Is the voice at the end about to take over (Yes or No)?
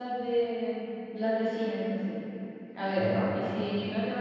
No